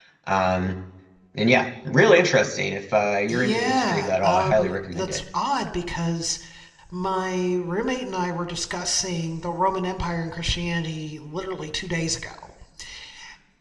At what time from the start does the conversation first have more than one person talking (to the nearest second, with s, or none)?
3 s